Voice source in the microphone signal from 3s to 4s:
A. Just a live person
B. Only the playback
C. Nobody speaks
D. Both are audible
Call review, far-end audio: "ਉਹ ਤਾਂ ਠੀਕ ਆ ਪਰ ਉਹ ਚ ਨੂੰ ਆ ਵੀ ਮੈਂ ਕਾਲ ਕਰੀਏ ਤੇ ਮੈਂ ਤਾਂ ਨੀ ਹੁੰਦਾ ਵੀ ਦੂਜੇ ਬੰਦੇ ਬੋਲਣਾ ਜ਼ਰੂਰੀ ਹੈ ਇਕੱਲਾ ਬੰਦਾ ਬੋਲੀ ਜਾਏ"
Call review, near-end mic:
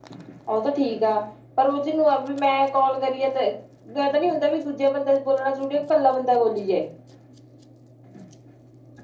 B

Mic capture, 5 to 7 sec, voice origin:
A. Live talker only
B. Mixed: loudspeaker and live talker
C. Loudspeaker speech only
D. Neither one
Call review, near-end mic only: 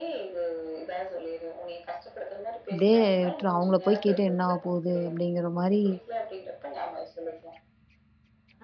B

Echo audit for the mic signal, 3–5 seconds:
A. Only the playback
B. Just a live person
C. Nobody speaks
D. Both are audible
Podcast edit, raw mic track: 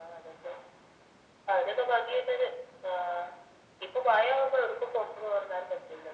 A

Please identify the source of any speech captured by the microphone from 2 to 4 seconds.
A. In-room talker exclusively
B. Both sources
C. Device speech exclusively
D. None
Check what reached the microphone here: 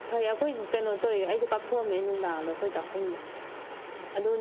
C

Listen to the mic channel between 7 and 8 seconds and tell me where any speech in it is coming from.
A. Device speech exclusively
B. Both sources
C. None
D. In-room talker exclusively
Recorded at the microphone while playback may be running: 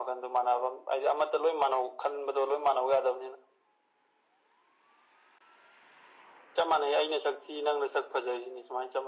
A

